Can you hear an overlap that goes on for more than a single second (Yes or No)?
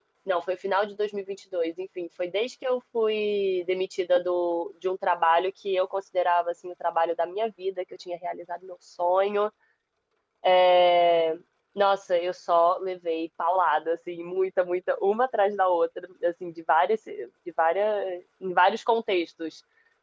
No